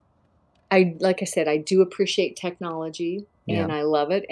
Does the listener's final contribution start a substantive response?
No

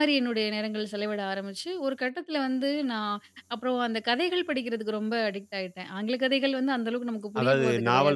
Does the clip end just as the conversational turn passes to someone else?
Yes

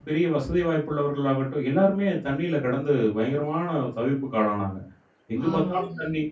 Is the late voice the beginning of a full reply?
No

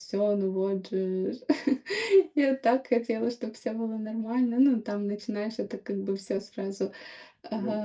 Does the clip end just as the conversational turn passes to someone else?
Yes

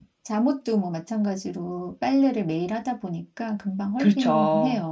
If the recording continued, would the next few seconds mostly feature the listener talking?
Yes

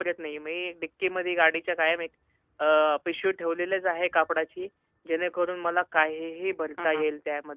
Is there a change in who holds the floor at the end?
Yes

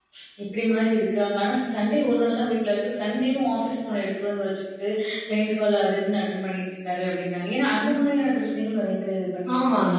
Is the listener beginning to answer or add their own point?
Yes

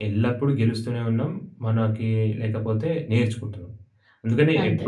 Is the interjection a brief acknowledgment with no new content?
Yes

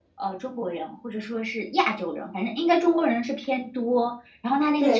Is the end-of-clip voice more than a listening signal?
Yes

